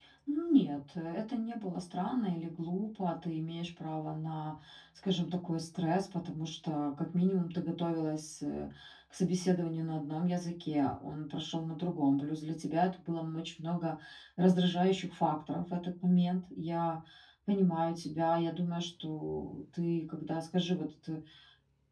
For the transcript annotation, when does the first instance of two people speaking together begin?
none

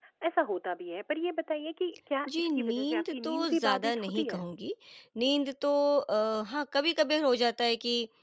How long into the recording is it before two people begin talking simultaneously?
2.3 s

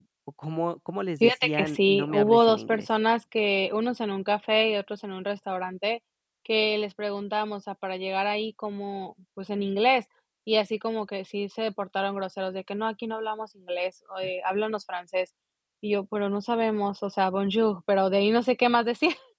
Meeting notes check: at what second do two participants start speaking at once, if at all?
1.2 s

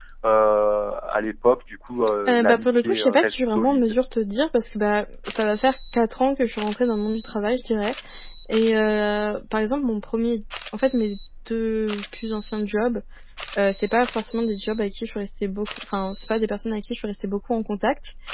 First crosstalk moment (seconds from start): 2.3 s

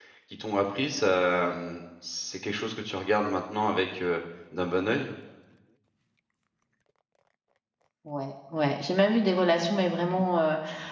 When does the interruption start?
none

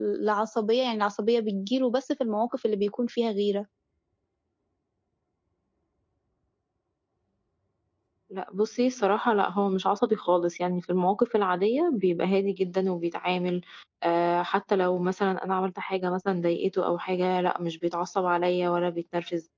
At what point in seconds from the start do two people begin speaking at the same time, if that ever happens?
none

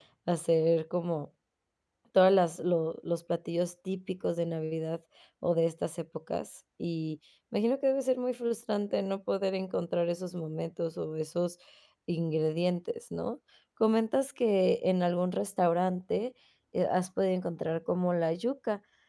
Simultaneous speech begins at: none

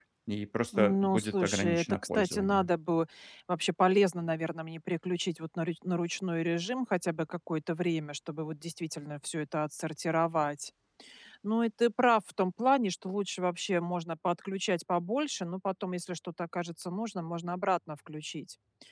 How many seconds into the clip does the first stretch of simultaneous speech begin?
0.7 s

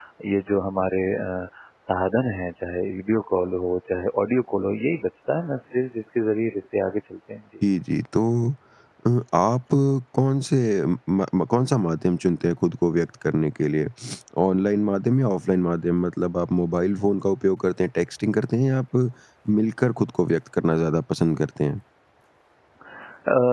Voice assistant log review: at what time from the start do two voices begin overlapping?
none

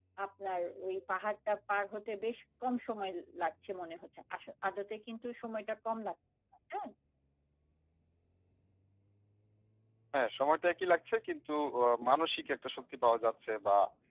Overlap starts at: none

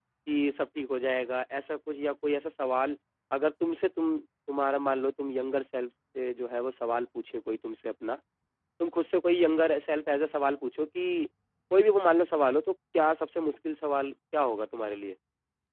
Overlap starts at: none

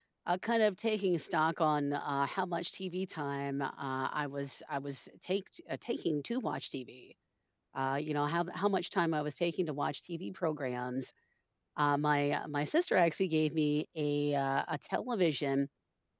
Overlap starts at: none

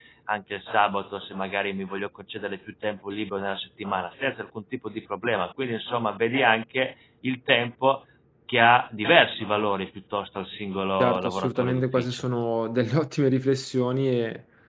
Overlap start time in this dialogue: 11.0 s

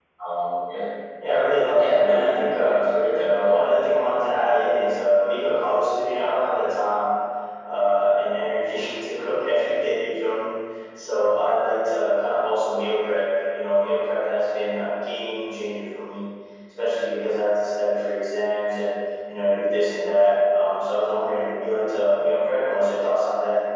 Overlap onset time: 1.8 s

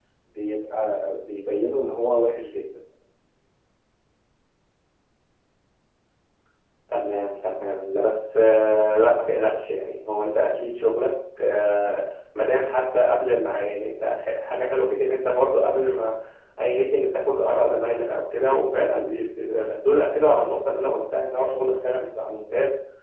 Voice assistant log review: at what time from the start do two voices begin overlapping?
none

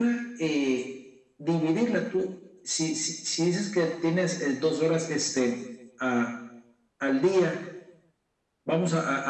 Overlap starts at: none

